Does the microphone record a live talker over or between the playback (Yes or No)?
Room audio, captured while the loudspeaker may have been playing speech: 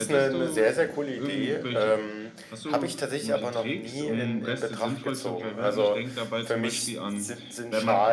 No